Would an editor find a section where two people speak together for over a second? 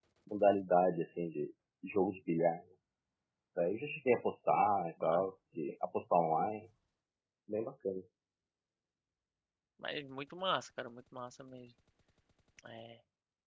No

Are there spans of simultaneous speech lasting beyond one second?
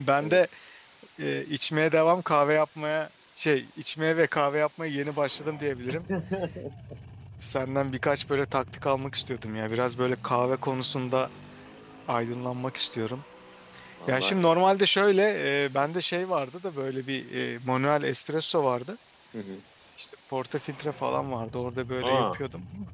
No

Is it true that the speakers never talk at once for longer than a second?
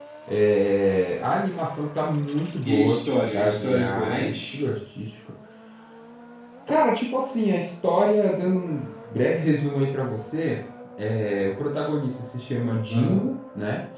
No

